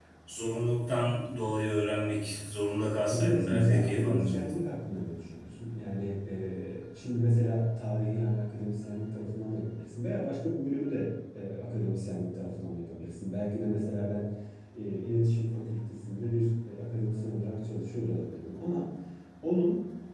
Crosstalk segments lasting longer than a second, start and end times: 3.1-4.6

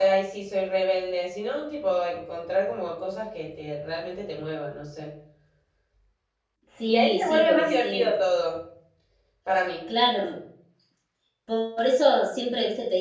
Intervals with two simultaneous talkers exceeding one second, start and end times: 6.9-8.1

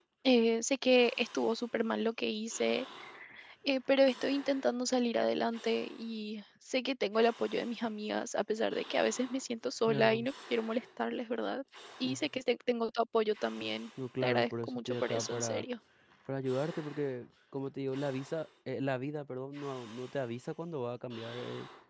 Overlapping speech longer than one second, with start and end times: 14.2-15.6

